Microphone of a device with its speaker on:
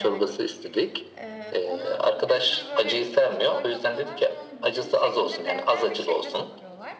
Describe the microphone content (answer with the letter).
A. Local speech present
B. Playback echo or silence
A